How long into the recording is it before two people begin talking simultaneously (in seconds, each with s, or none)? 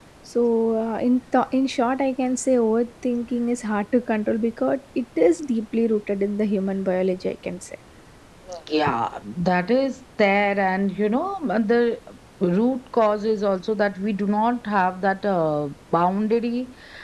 none